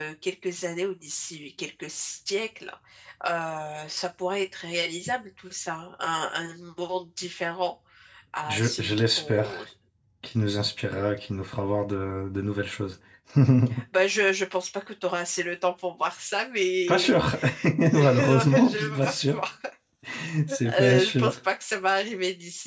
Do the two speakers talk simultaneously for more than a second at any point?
Yes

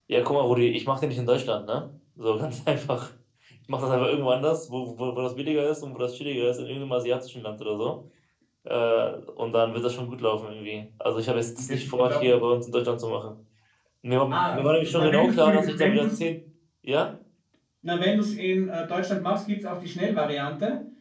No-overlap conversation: No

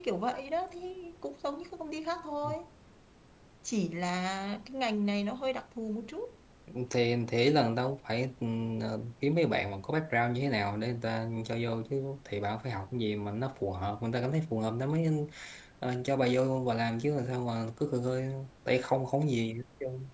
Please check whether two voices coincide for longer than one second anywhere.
No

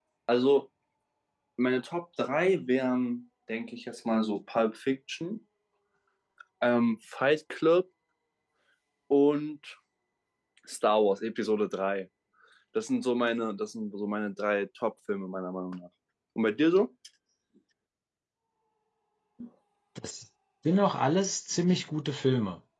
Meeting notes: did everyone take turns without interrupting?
Yes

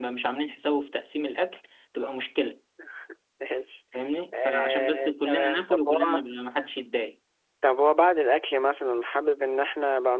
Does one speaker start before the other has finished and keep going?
Yes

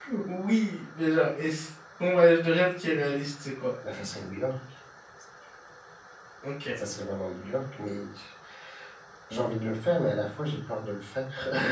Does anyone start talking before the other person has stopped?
No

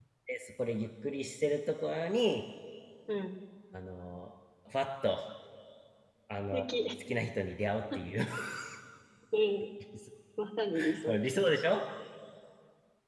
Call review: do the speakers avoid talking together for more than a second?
Yes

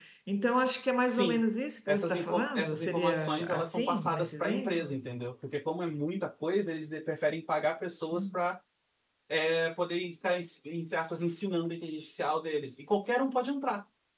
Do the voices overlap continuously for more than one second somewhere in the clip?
Yes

